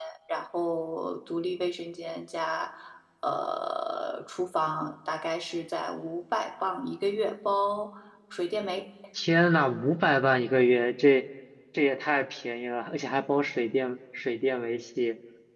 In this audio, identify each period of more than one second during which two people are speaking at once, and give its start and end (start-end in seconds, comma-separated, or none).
none